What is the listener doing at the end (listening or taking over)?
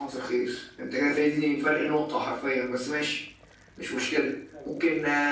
listening